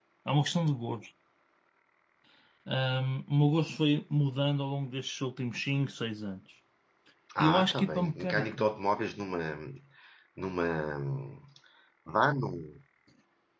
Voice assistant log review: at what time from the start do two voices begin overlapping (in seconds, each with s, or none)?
7.4 s